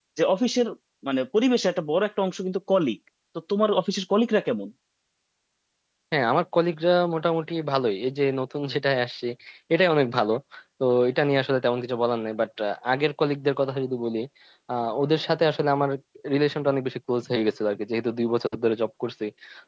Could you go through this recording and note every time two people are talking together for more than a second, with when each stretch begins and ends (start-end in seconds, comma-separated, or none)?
none